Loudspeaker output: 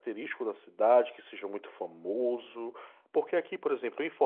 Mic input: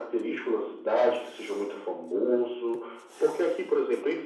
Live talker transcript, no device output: none

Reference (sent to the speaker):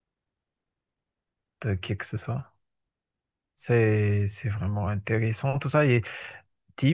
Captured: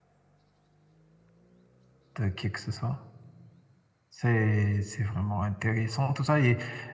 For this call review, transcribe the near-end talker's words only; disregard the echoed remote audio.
none

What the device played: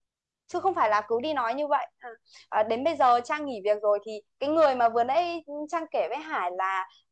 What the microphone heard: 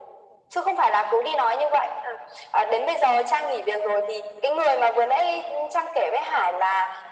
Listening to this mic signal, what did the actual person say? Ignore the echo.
none

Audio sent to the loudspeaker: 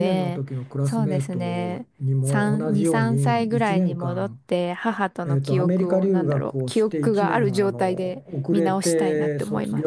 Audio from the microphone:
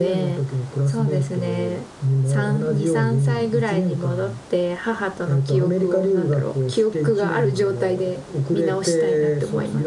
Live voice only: none

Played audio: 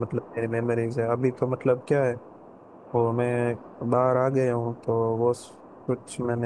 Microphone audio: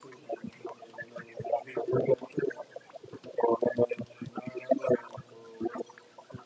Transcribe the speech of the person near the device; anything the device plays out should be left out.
none

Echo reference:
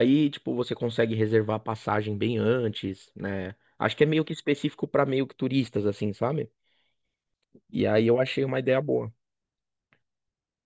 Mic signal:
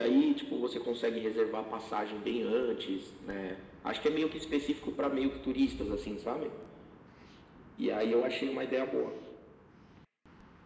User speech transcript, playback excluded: none

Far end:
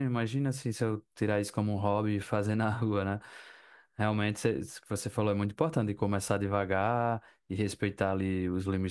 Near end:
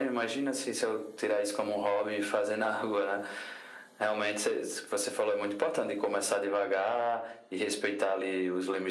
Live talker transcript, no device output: none

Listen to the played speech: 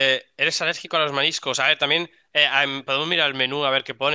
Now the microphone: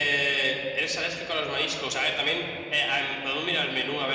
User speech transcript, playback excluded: none

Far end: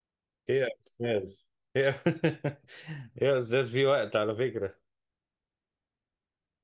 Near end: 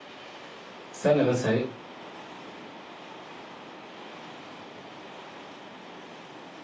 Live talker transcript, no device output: استنى بس هي

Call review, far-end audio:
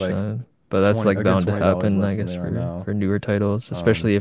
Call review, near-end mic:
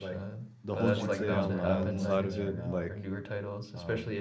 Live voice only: the whole GTA Online side of it, like

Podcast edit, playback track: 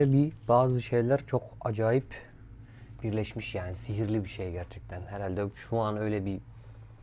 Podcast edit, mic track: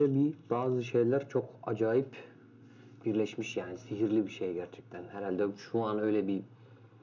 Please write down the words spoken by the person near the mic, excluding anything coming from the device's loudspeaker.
none

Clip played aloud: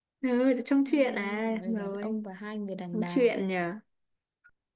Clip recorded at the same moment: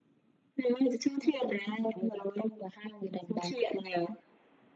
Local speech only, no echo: none

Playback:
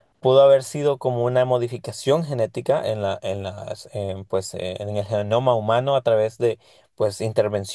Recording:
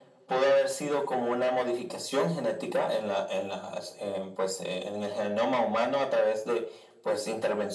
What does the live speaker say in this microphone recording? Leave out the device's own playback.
none

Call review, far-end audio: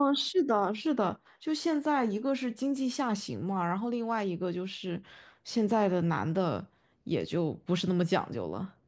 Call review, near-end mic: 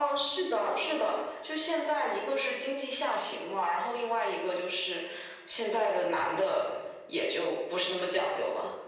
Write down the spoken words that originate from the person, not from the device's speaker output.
none

